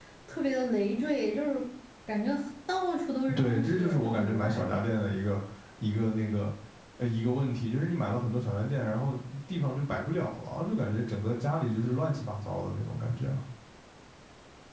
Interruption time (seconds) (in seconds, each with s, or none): 3.3 s